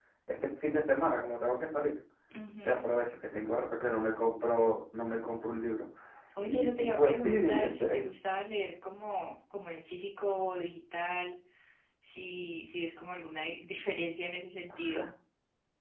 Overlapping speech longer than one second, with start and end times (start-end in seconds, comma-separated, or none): 6.5-8.1